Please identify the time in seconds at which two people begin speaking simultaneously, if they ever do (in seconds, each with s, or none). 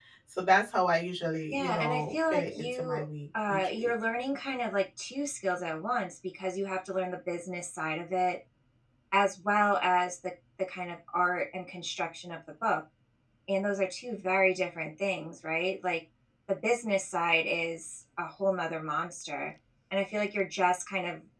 1.5 s